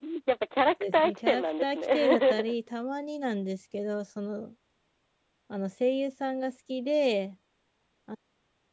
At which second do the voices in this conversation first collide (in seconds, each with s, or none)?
0.9 s